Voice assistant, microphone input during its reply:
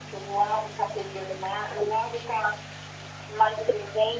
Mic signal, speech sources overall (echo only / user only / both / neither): echo only